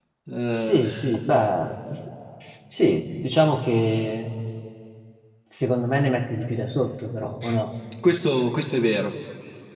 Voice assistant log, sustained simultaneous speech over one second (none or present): none